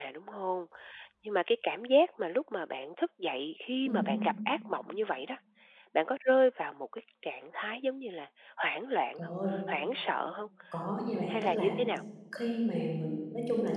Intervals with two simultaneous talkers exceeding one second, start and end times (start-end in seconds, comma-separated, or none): none